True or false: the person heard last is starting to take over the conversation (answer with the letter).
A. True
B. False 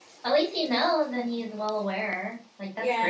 A